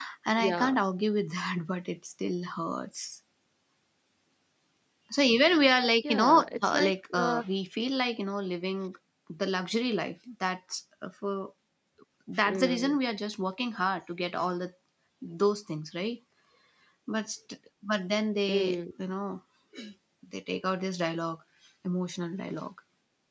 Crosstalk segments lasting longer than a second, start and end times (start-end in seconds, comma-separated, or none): 6.1-7.4